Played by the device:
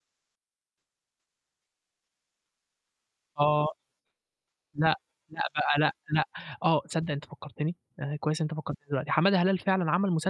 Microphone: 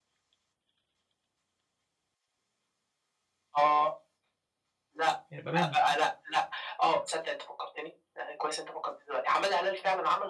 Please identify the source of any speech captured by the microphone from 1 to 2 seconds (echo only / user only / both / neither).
neither